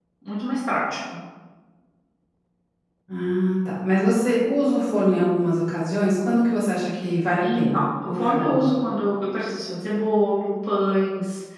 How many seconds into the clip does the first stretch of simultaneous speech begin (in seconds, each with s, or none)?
7.4 s